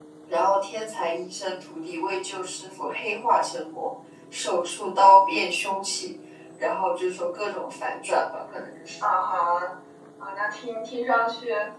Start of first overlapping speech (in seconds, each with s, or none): none